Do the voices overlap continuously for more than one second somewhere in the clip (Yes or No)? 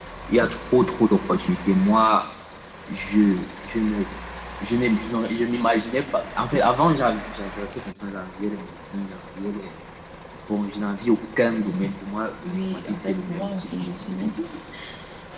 Yes